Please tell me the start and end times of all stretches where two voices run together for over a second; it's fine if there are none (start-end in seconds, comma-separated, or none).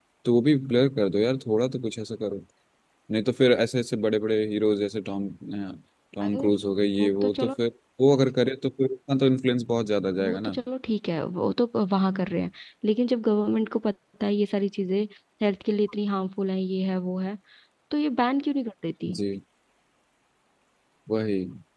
none